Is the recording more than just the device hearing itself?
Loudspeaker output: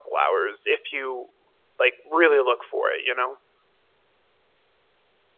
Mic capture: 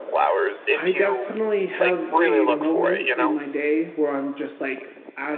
Yes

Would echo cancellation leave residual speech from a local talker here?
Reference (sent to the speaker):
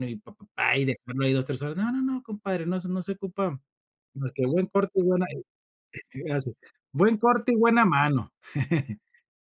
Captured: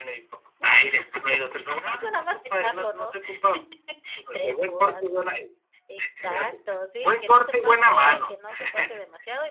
Yes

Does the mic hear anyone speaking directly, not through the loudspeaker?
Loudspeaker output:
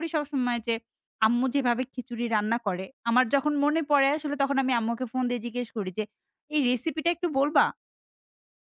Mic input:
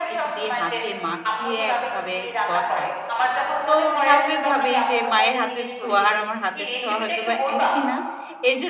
Yes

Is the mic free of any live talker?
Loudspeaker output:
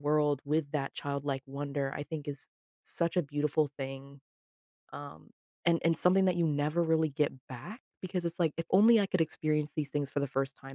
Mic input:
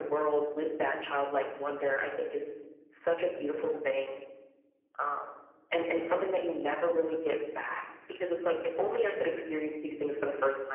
Yes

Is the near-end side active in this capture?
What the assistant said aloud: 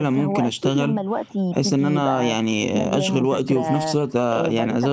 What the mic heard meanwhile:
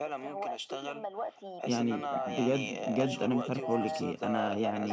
Yes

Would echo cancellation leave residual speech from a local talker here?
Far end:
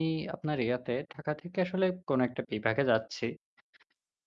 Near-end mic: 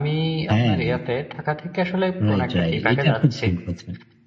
Yes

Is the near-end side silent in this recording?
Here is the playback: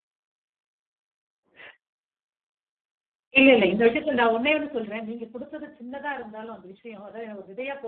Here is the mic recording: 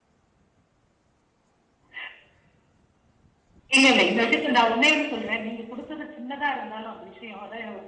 Yes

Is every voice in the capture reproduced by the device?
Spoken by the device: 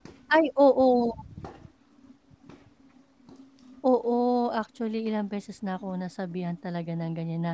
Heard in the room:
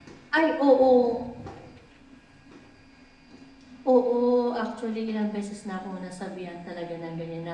Yes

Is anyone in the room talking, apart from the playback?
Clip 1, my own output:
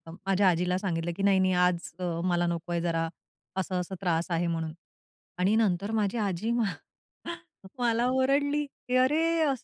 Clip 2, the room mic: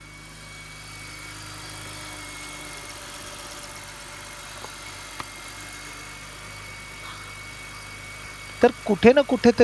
Yes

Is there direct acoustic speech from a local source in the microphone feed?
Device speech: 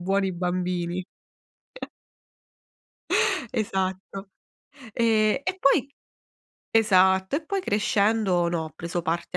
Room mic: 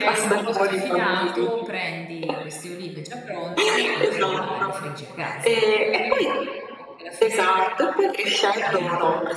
Yes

